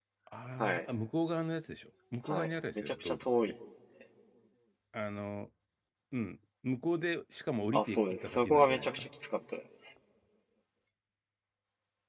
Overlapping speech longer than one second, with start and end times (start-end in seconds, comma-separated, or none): 2.3-3.5, 7.7-9.1